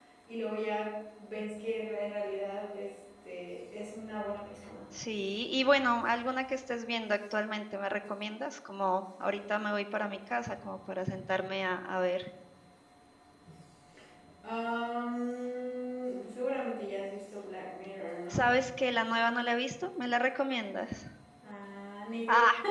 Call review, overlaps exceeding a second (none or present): none